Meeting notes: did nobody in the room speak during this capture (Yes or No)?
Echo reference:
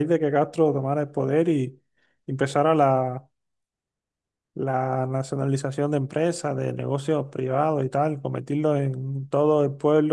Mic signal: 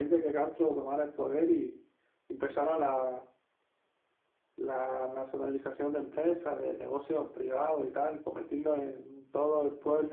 Yes